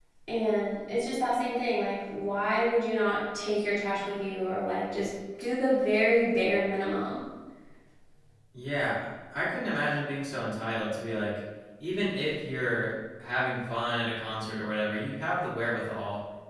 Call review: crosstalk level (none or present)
none